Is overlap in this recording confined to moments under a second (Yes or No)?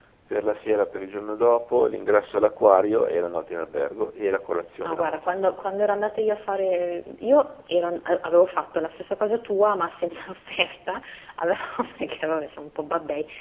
Yes